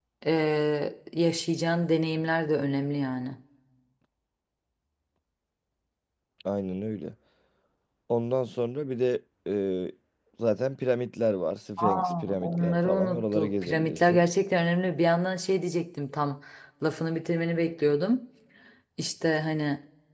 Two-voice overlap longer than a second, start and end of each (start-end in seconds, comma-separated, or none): 11.8-14.2